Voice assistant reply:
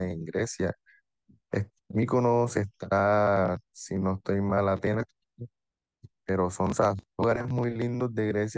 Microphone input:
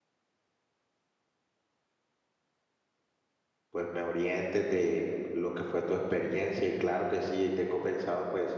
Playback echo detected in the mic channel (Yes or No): No